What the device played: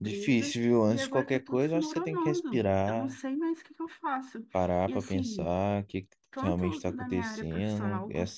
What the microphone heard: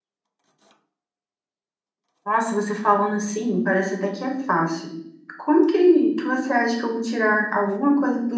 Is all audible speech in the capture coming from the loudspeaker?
No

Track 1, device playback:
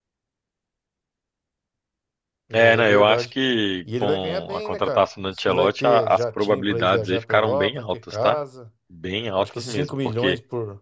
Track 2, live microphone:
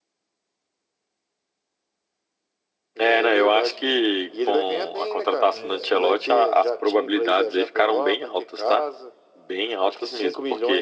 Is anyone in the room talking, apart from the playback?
Yes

